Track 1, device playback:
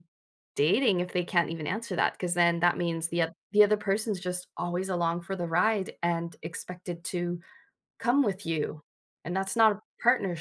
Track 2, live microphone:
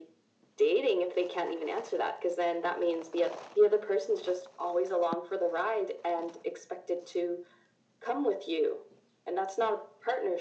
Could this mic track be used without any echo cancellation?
No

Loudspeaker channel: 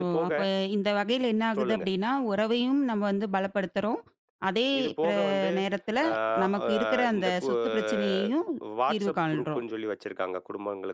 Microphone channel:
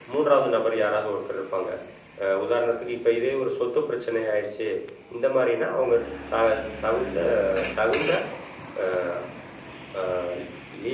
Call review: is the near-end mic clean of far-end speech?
Yes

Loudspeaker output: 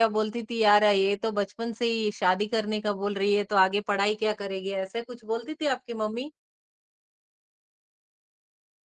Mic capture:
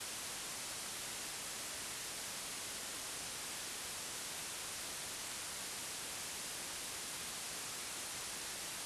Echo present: No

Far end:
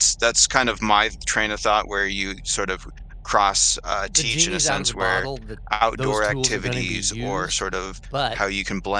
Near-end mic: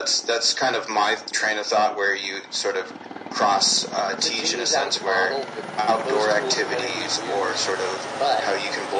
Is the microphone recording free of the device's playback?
No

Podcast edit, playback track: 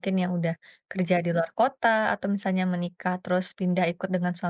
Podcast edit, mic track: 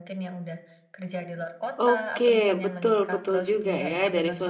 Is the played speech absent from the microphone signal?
No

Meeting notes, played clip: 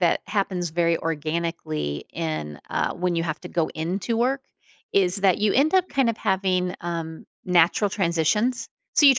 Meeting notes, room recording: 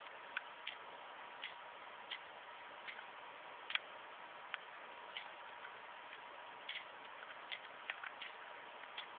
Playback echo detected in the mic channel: No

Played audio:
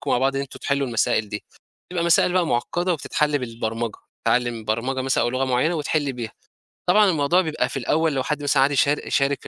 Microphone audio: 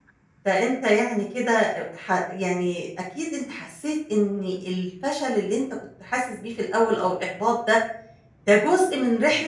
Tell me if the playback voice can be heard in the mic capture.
No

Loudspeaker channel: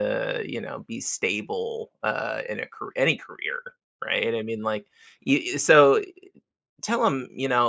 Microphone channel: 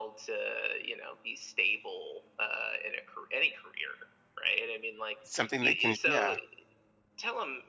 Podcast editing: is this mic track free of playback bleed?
No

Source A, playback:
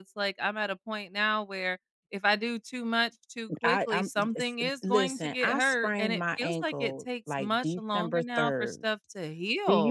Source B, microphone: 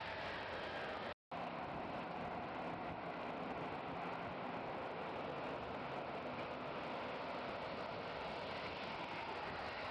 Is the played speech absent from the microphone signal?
Yes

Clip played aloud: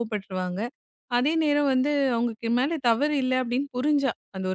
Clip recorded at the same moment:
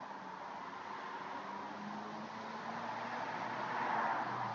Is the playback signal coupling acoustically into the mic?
No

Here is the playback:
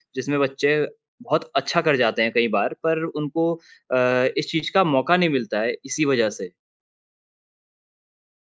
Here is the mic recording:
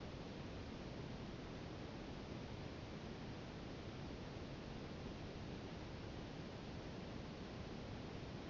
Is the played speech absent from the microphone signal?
Yes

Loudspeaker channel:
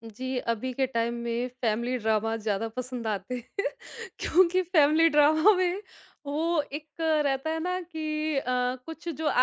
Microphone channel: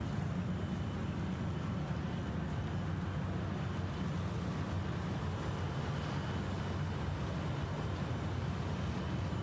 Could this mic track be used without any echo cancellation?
Yes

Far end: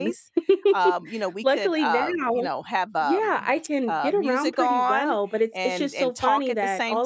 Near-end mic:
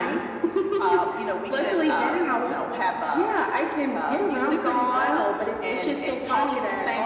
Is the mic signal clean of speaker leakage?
No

